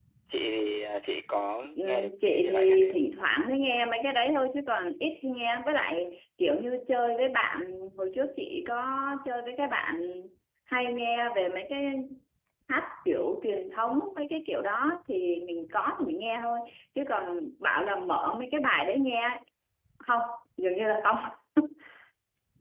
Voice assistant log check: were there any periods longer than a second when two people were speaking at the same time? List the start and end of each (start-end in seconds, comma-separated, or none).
1.8-3.0